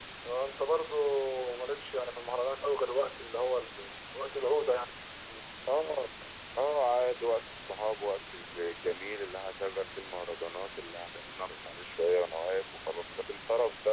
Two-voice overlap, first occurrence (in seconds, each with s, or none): none